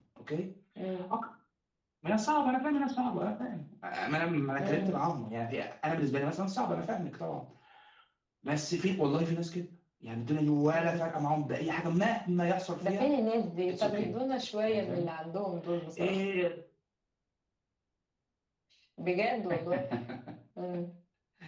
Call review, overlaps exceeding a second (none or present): none